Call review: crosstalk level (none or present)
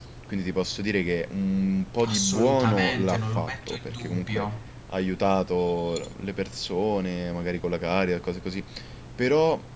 present